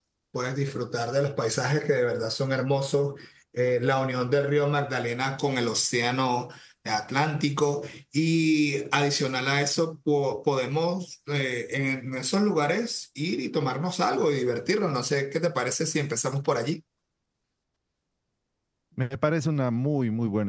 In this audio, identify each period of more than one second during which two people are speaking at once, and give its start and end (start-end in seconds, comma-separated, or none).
none